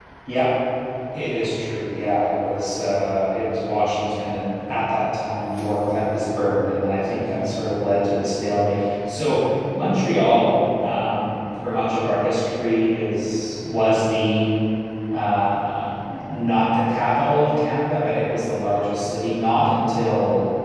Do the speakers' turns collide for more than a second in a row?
No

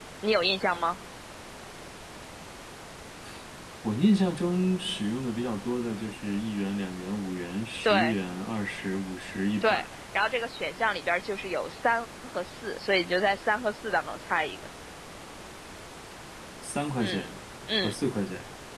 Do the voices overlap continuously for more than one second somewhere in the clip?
No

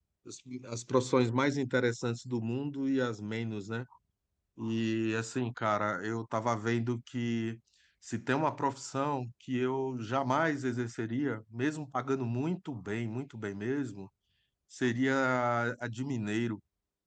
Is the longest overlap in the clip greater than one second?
No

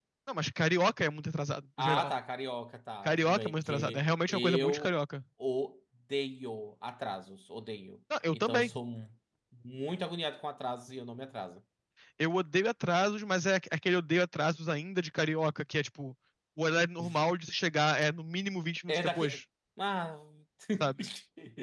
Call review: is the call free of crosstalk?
No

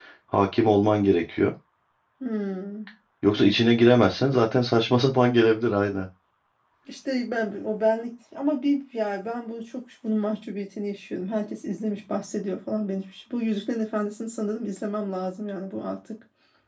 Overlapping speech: No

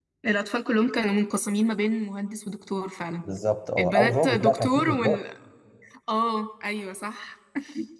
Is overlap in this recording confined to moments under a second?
No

